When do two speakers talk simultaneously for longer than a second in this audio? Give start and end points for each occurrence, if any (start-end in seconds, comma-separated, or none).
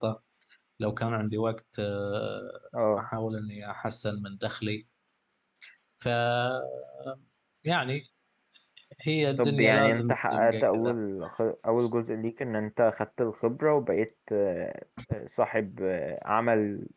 9.4-11.0